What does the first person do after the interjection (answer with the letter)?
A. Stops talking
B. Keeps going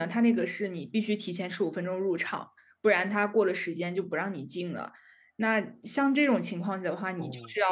B